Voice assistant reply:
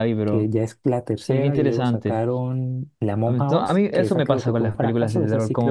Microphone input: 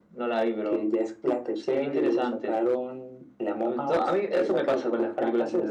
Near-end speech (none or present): none